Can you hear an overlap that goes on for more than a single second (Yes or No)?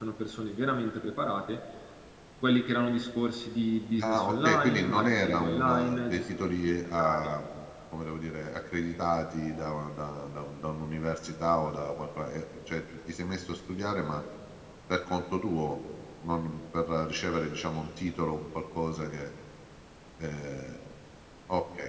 Yes